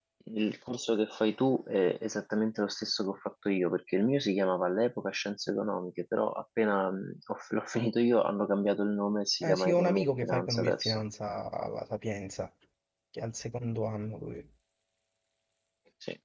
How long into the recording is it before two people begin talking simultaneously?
9.4 s

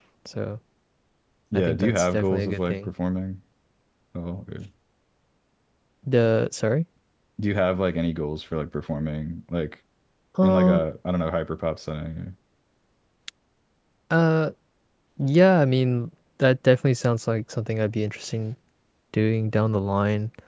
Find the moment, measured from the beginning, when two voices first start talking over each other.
1.5 s

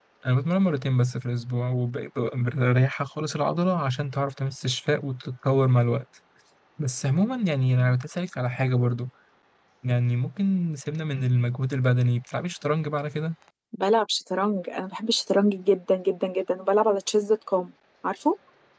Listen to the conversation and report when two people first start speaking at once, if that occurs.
none

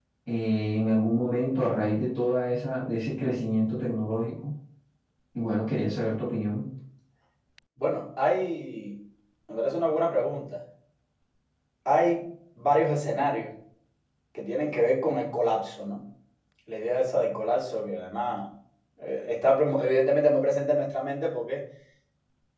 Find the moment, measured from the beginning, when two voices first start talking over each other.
none

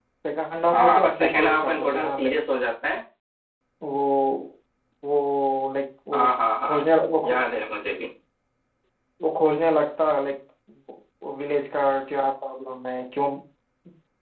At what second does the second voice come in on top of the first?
0.7 s

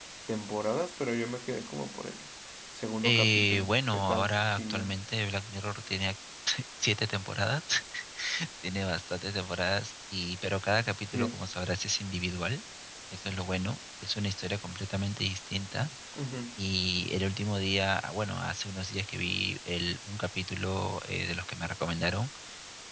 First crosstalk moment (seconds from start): 3.0 s

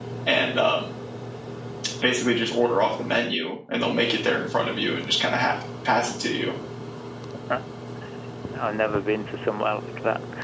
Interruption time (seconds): none

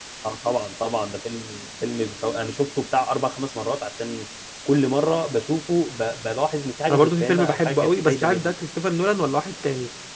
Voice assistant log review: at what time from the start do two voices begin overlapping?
6.9 s

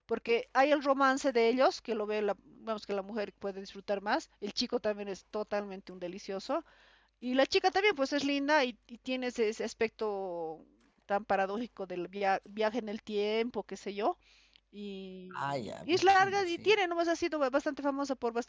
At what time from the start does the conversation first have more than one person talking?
15.3 s

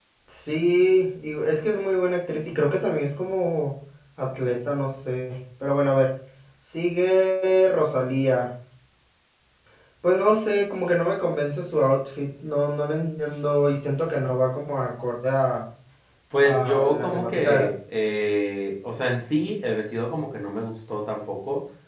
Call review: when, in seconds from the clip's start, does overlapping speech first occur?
16.4 s

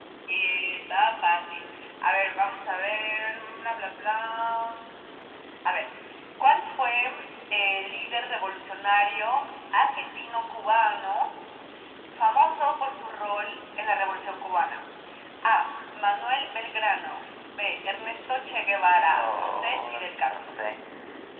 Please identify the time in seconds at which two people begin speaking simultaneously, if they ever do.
19.1 s

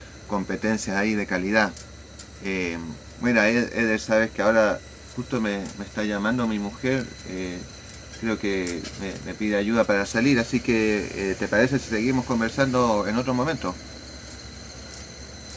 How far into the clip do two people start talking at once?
none

